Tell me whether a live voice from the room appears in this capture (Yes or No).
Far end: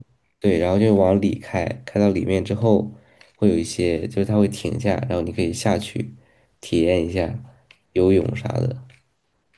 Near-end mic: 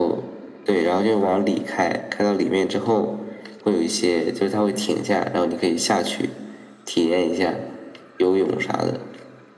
No